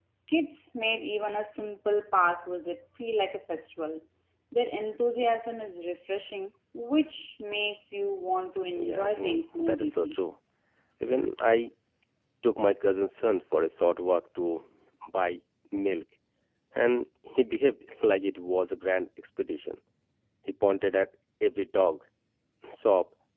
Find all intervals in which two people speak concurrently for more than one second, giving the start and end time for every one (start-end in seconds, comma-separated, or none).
8.8-10.2